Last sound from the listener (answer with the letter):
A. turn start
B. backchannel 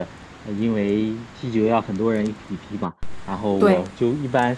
B